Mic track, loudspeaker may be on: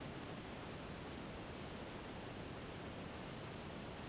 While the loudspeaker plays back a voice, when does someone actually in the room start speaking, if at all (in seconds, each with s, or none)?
none